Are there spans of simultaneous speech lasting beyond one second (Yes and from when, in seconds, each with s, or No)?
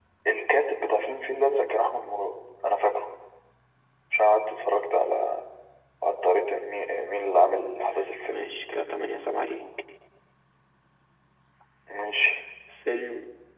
No